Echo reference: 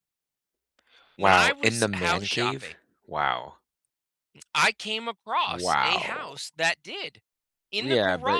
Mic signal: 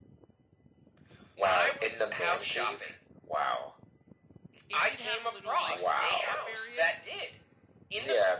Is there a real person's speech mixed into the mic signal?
Yes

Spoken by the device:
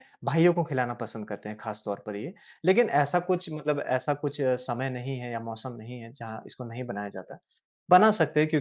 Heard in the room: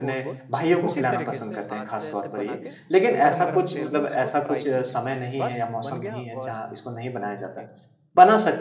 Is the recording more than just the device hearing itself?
Yes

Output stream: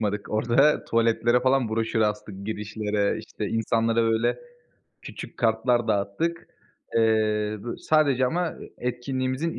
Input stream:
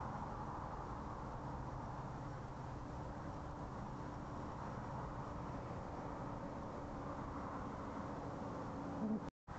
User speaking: No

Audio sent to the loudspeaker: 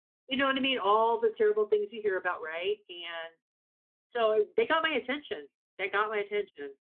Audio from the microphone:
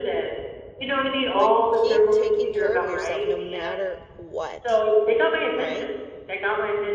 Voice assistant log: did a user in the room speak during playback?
Yes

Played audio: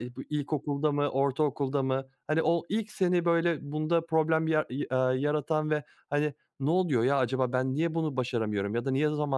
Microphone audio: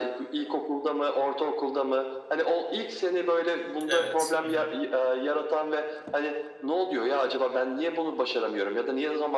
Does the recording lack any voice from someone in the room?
No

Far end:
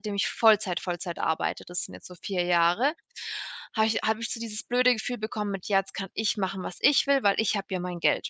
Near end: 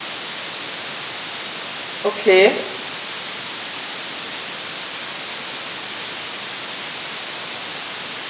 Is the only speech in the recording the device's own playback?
No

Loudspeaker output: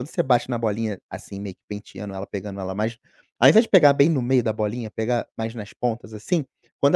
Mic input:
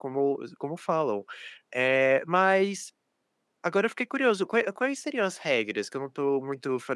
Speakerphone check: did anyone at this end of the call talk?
Yes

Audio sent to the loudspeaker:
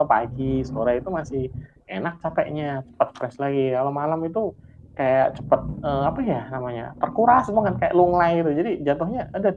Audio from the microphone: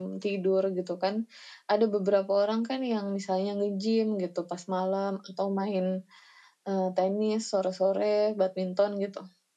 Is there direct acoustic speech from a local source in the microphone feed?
Yes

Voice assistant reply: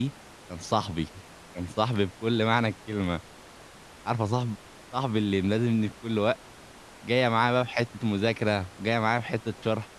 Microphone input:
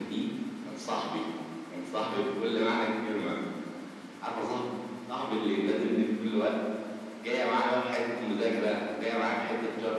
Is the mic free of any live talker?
Yes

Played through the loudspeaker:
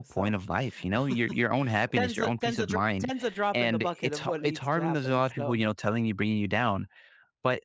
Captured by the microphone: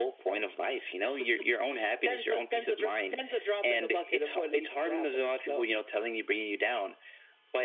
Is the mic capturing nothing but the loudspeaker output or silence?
Yes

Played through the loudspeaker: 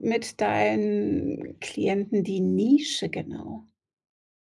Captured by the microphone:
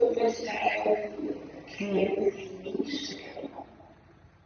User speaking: Yes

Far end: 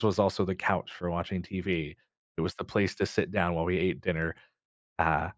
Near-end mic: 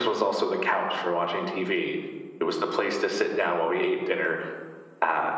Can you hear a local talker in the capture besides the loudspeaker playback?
No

